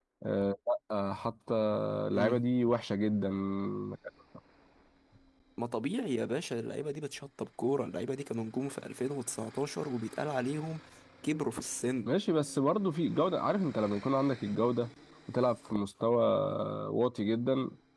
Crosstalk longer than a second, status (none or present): none